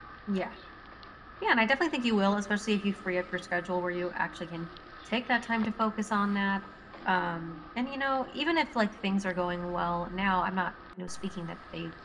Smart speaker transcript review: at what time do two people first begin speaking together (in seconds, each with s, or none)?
none